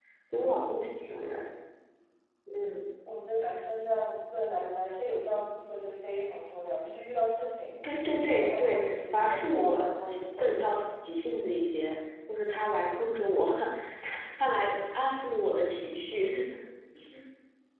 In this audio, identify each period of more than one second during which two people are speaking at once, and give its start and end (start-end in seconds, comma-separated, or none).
8.4-10.7